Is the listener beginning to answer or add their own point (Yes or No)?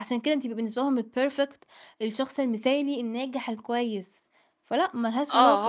Yes